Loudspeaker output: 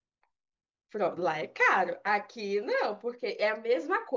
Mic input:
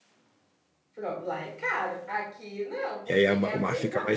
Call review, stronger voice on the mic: user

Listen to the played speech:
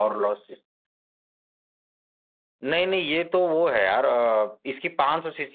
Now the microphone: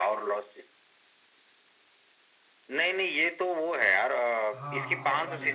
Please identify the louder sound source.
echo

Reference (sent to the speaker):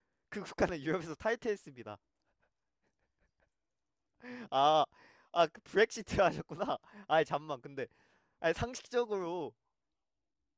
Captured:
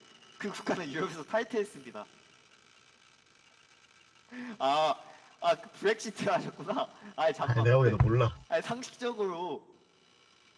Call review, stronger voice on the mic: user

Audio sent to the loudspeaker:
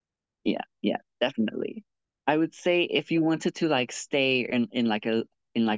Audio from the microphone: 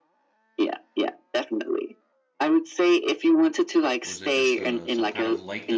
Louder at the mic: echo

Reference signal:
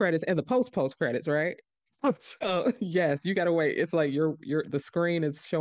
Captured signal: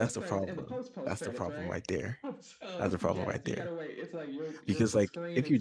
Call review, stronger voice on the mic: user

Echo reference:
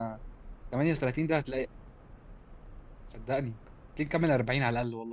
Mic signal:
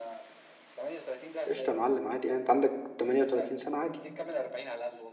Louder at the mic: user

